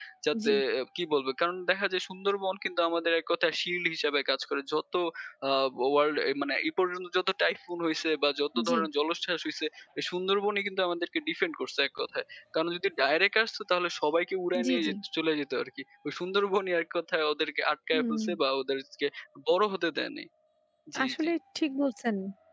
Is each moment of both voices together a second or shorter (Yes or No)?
Yes